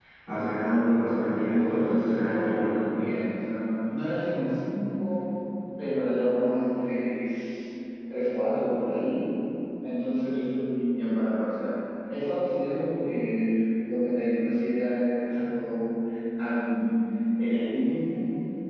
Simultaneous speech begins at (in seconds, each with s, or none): 1.5 s